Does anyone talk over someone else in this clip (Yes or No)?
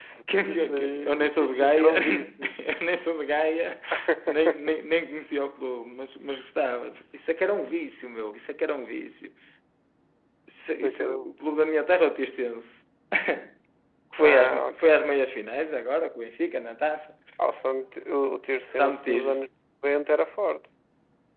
Yes